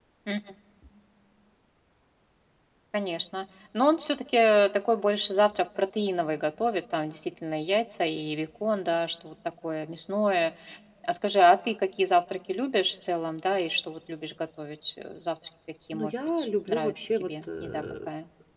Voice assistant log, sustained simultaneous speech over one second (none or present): present